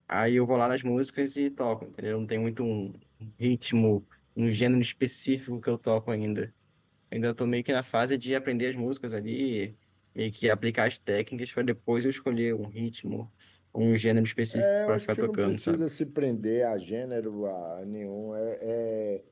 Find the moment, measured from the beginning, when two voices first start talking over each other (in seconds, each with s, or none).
14.5 s